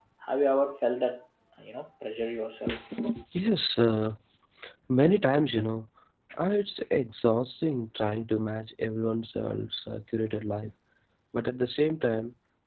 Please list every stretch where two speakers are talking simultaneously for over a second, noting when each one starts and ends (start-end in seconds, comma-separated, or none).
none